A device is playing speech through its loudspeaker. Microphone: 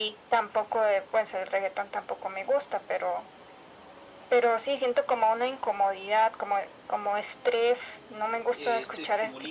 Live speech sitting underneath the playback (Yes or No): Yes